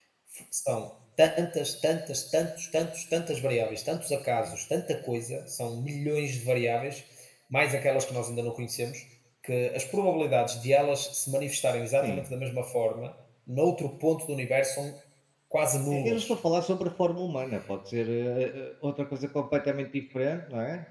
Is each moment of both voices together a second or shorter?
Yes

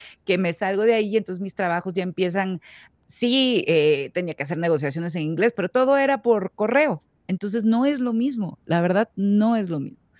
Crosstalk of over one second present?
No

